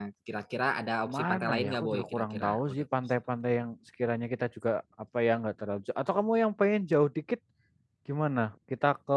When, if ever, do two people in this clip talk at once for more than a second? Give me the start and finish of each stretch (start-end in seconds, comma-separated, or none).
1.1-2.9